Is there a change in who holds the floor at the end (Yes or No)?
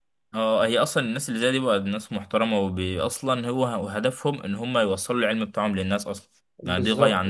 Yes